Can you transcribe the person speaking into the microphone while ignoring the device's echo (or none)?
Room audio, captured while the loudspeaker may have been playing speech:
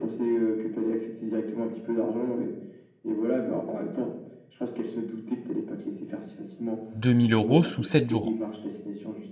2000 euros sous 7 jours.